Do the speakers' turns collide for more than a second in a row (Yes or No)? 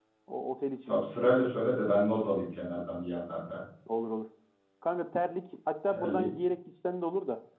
No